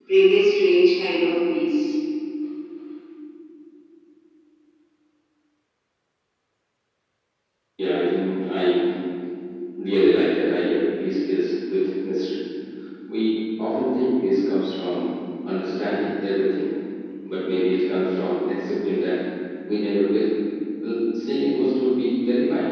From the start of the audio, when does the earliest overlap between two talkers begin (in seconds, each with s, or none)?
none